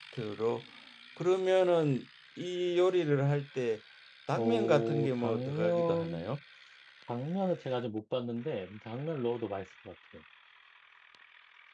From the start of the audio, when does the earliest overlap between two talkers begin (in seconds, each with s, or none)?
4.4 s